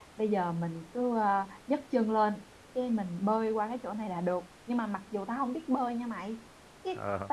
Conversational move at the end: listening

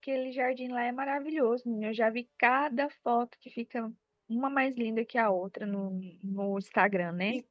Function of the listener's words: taking over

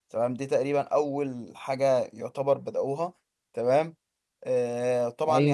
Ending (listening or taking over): listening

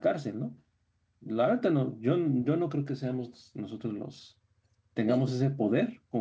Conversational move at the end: listening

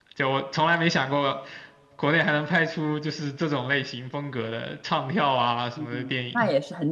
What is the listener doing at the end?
taking over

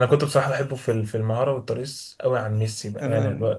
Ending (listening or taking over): listening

